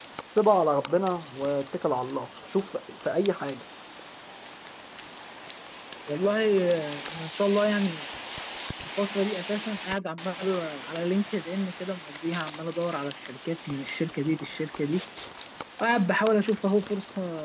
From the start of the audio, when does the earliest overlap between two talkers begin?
none

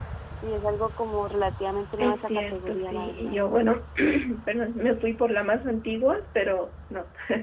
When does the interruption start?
2.0 s

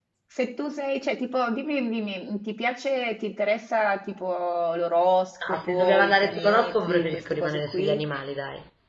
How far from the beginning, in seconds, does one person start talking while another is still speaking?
5.4 s

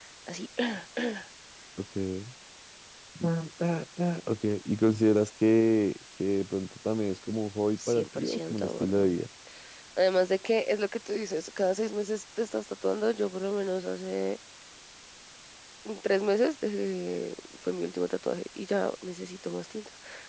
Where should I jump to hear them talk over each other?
7.8 s

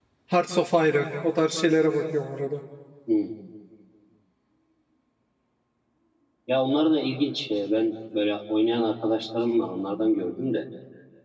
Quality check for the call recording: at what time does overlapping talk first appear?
none

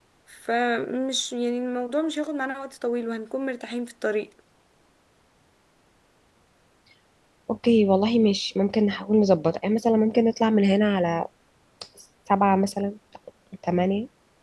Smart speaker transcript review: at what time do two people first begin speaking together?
none

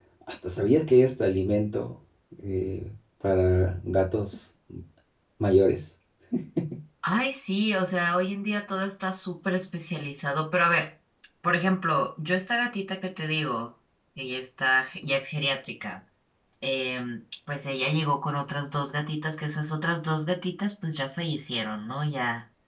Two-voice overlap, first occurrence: none

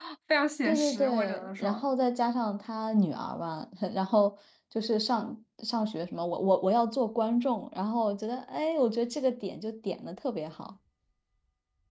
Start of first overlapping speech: 0.7 s

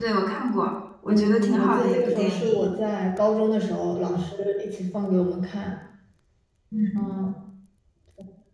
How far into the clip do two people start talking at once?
1.1 s

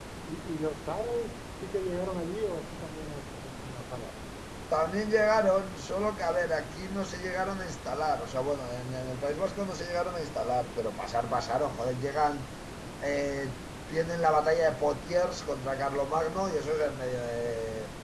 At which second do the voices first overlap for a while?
none

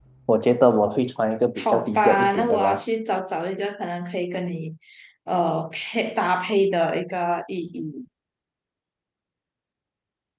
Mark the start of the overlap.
1.6 s

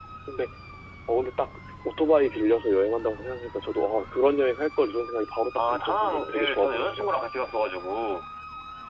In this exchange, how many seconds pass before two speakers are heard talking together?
5.5 s

